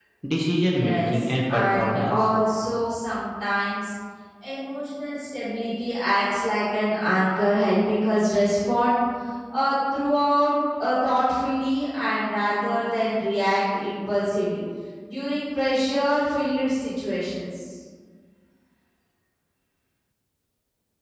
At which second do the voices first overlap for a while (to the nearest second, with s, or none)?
1 s